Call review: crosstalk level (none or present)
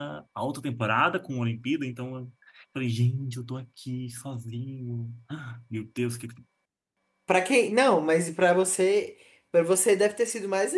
none